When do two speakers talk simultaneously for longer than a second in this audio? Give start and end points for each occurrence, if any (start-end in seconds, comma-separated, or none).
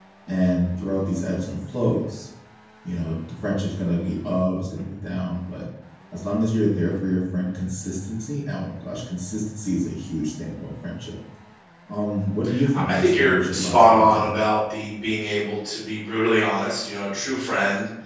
12.7-14.3